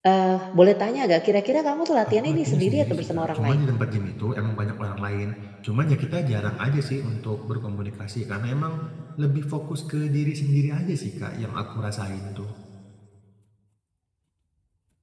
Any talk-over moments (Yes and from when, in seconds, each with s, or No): Yes, from 2.0 s